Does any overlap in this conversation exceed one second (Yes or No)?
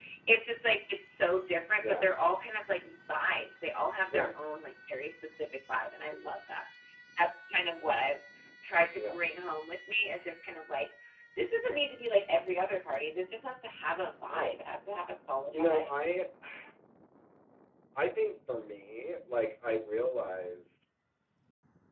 No